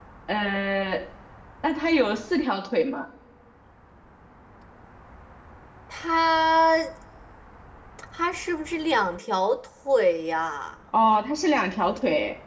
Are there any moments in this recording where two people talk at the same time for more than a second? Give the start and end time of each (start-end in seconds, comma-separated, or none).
none